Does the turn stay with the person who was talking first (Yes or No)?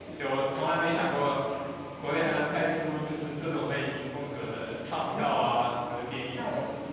No